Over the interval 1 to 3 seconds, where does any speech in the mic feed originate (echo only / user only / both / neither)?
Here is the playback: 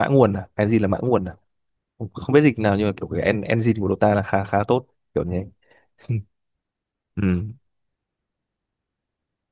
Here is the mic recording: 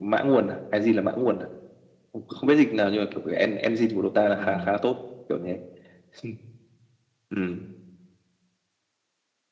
echo only